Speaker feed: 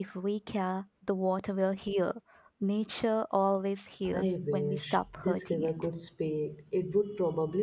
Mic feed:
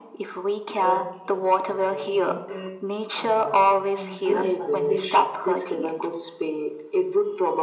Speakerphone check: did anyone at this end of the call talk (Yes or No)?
Yes